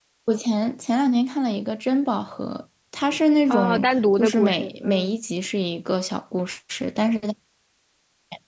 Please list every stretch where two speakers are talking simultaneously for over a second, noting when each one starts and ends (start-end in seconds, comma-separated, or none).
3.5-5.2